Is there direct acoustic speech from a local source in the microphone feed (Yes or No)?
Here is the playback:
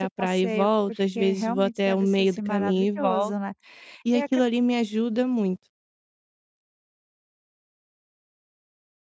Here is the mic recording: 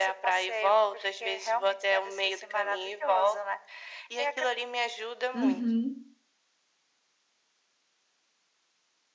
Yes